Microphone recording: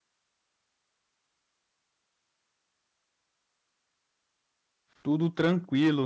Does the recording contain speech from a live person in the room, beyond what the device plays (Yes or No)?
Yes